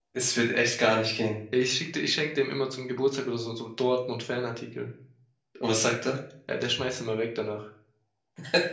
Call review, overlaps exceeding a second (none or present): none